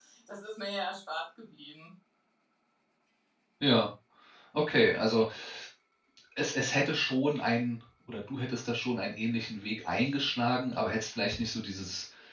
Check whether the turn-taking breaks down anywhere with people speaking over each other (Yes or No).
No